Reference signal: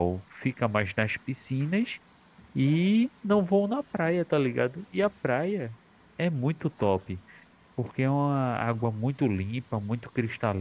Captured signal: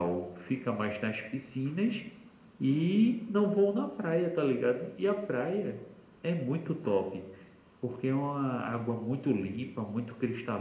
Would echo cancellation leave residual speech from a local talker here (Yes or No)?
No